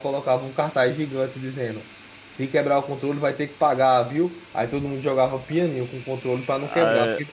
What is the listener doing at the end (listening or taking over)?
listening